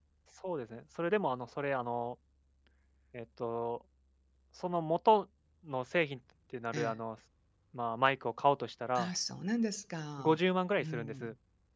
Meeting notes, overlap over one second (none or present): none